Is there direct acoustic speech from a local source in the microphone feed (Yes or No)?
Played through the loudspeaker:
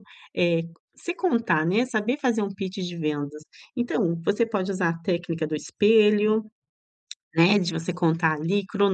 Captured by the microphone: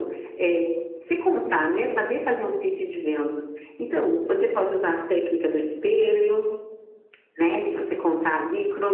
No